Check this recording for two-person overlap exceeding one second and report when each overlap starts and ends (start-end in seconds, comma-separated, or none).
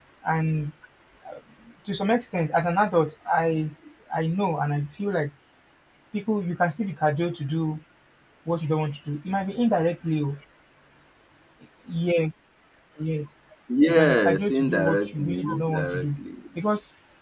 13.9-16.1